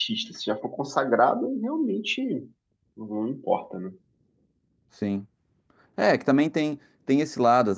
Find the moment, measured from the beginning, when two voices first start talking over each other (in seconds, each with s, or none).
none